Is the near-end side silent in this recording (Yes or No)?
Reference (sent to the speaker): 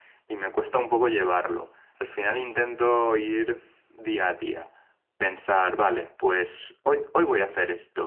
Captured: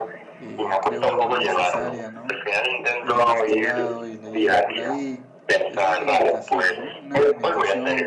No